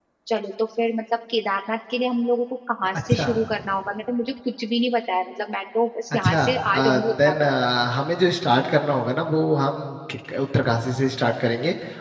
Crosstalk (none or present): present